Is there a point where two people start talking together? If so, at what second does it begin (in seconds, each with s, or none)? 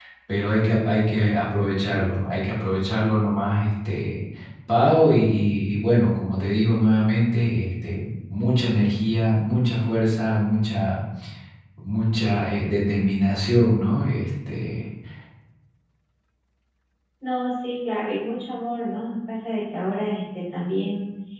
none